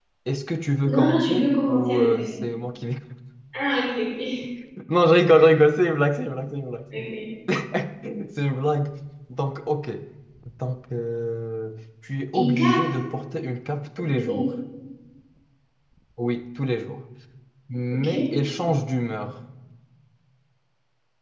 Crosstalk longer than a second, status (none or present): present